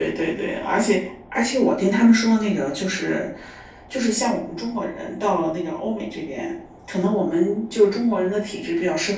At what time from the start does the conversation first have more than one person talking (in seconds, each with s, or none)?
none